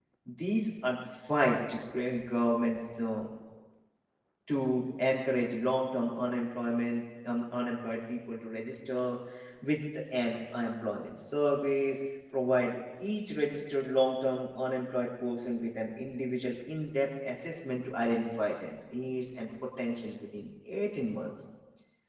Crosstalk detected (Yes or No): No